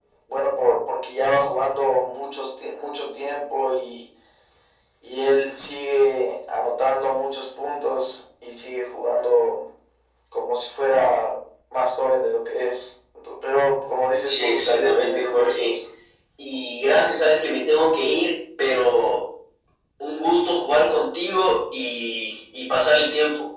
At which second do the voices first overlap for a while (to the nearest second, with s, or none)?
14 s